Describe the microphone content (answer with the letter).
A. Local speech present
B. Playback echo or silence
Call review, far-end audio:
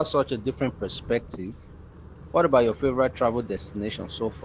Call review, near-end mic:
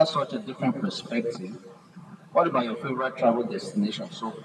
B